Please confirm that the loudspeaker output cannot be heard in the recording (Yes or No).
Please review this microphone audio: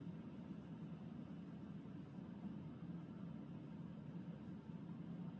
Yes